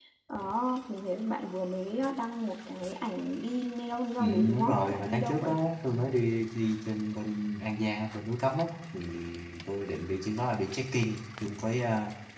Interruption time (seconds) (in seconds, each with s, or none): 4.2 s